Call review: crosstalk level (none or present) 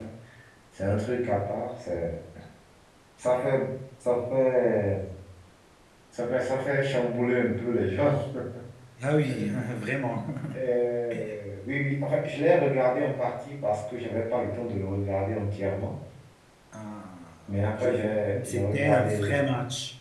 present